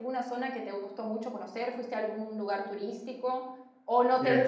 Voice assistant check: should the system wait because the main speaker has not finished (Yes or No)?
Yes